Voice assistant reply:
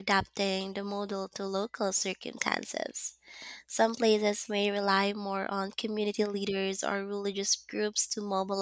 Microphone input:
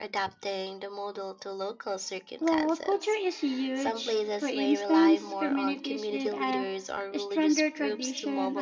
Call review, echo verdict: present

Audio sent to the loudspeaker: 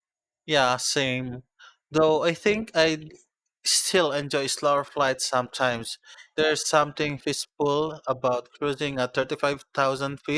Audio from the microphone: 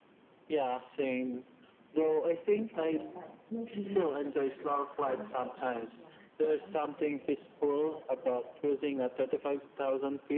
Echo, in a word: present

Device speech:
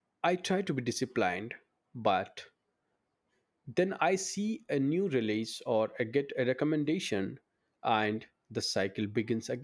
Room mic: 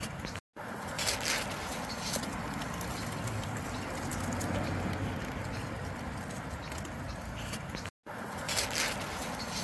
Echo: none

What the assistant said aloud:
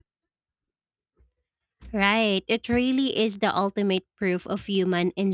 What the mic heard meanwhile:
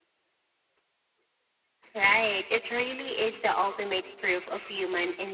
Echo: present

